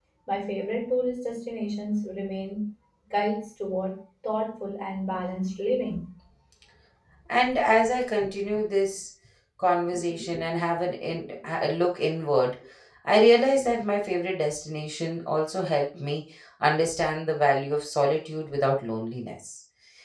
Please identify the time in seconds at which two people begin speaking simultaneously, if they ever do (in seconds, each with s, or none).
none